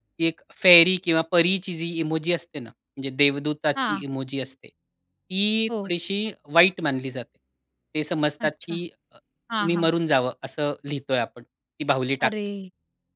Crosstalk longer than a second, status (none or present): none